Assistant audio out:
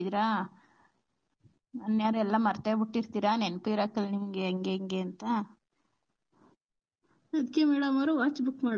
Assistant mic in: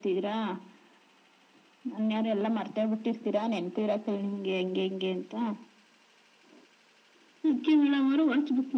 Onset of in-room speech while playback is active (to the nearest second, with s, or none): none